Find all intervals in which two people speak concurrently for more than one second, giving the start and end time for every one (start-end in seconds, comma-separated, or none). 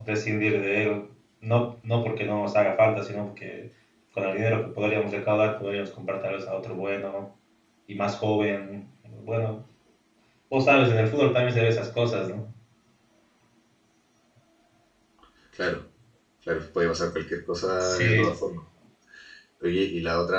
none